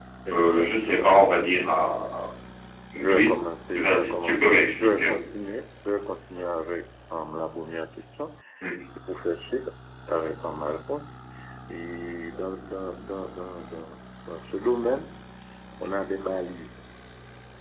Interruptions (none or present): present